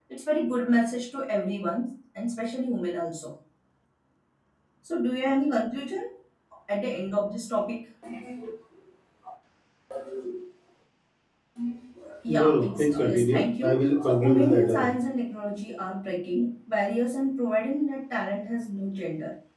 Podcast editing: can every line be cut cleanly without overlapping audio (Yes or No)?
No